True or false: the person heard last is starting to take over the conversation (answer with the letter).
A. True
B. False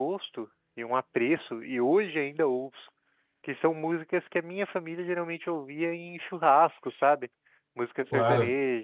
B